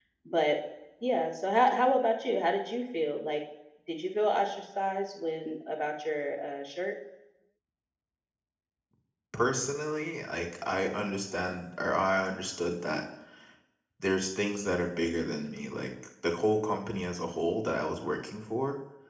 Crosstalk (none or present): none